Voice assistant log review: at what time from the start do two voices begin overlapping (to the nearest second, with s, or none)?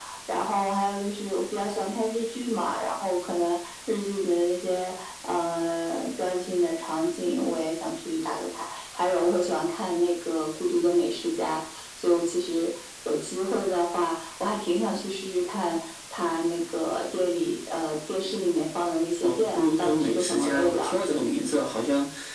19 s